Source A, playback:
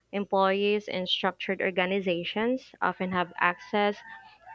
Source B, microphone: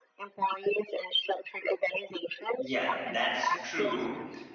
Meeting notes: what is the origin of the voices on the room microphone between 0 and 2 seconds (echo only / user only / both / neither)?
echo only